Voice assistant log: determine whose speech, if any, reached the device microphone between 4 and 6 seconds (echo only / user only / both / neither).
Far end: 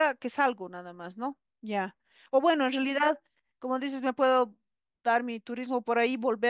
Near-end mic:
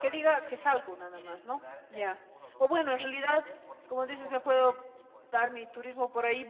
both